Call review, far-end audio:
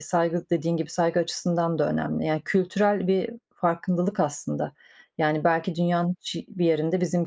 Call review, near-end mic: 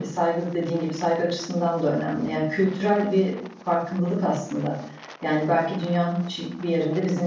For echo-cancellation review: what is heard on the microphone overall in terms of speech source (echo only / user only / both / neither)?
echo only